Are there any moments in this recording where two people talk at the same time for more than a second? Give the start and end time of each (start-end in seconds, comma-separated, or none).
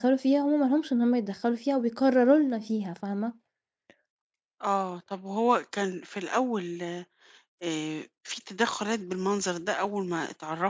none